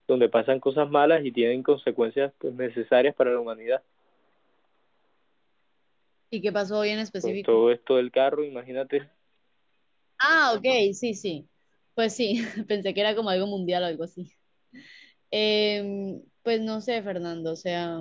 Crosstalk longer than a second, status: none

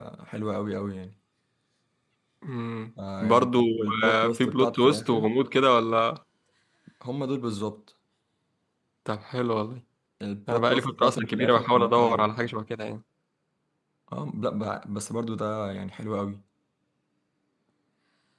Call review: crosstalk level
present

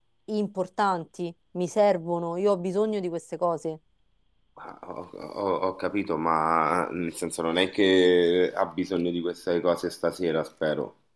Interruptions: none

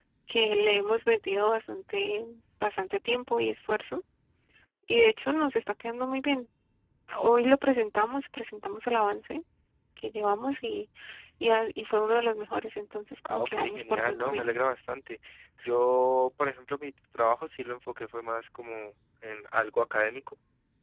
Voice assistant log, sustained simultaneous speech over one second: present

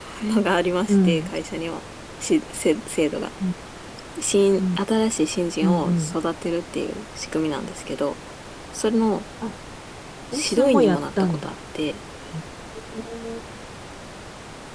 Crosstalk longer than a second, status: present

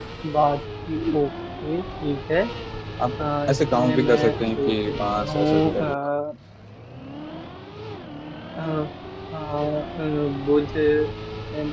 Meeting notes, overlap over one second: present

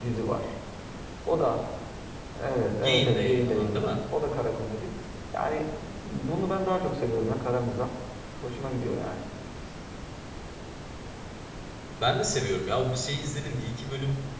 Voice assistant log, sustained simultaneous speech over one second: present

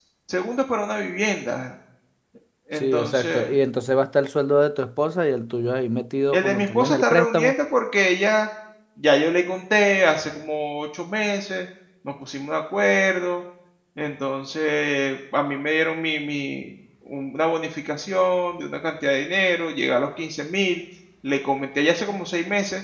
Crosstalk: present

